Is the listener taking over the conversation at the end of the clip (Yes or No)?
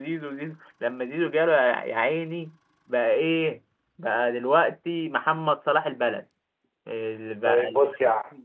Yes